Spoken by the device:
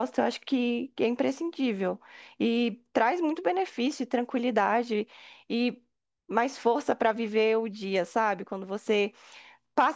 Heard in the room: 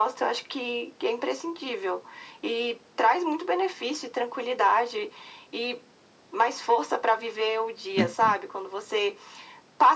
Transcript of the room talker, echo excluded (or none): Hum,